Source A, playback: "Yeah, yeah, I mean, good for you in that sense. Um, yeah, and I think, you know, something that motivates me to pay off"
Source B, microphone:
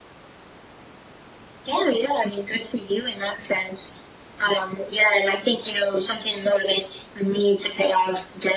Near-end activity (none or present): none